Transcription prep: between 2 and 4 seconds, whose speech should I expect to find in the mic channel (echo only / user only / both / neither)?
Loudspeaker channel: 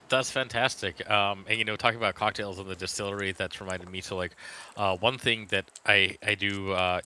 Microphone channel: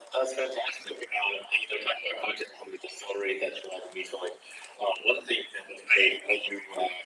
echo only